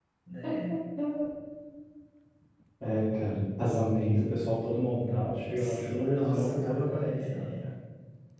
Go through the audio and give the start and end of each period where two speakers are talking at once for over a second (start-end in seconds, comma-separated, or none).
5.6-7.7